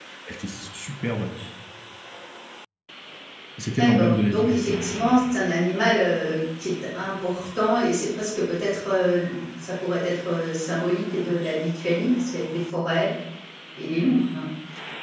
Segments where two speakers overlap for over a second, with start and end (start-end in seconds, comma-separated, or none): 3.8-5.2